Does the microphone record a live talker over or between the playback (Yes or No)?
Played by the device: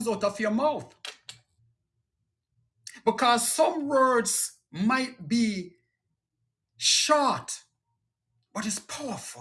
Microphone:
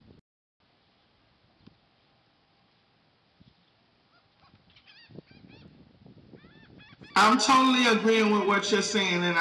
Yes